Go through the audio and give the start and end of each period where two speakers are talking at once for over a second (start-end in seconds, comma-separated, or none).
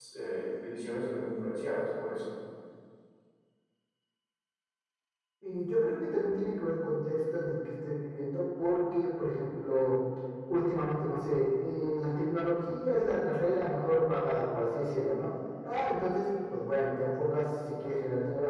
none